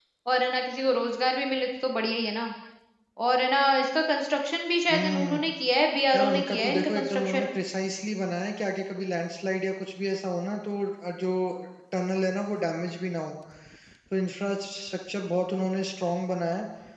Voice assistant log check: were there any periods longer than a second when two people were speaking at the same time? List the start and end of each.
6.1-7.5

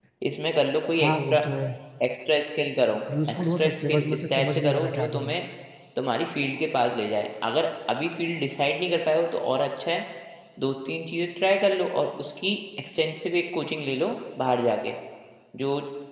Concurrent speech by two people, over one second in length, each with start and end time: 3.3-5.3

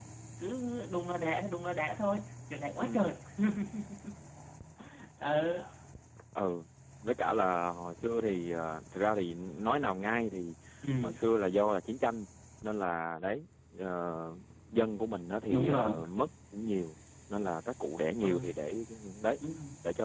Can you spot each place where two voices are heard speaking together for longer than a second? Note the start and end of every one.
none

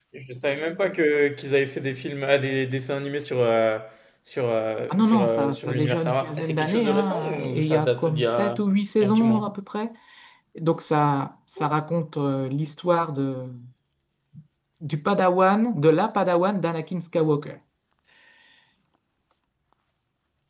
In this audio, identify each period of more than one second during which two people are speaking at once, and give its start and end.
4.9-8.6

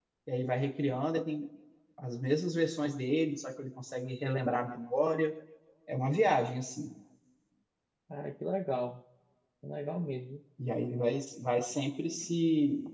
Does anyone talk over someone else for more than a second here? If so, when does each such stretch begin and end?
none

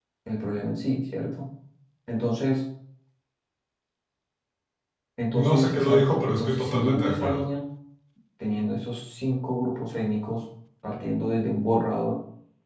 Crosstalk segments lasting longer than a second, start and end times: 5.3-7.4

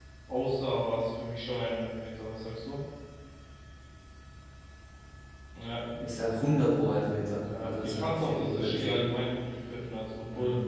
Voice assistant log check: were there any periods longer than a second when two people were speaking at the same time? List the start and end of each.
7.6-9.0

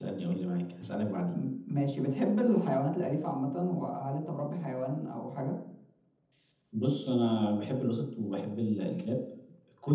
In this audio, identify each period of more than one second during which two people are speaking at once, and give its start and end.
none

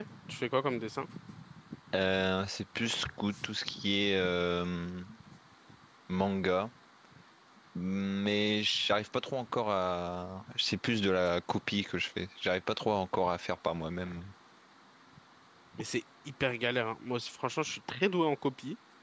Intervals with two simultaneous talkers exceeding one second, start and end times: none

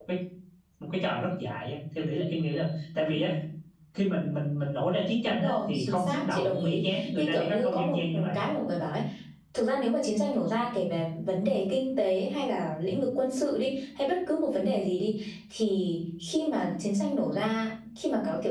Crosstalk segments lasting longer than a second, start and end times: 5.2-8.4

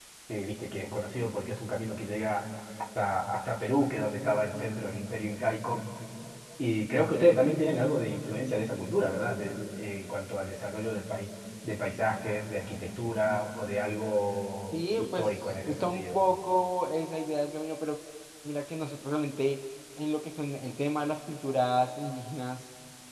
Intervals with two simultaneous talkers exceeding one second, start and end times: 14.7-16.2

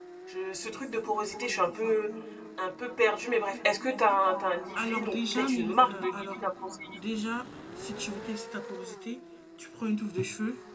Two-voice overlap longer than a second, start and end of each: 4.8-6.4

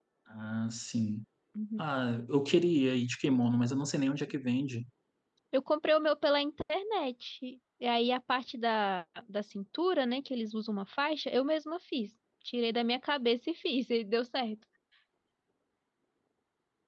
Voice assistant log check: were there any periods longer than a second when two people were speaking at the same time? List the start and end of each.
none

